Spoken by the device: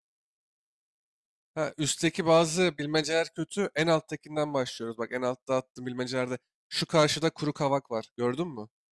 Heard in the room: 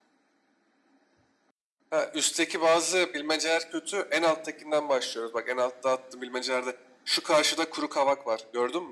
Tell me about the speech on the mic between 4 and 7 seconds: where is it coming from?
echo only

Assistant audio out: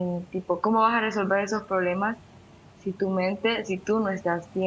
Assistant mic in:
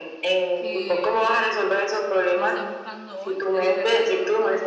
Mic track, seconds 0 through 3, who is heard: both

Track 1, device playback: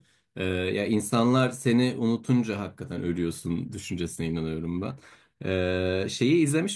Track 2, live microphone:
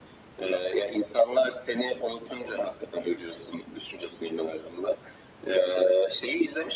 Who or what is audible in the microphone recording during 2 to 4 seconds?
echo only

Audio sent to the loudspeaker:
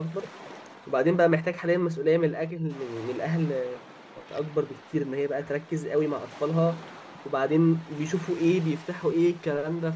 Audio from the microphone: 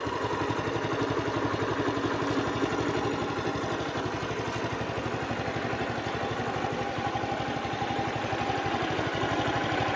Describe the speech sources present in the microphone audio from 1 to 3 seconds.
neither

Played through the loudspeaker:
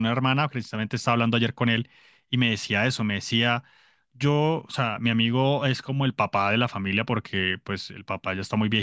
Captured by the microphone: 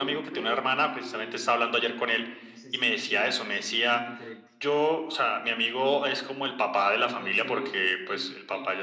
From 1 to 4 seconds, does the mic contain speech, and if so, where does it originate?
both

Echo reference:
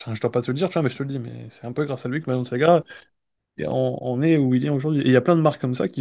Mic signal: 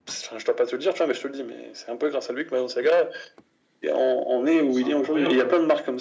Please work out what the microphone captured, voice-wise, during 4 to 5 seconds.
both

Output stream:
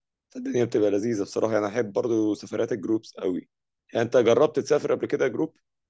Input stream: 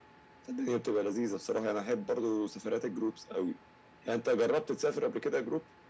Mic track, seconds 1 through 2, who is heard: echo only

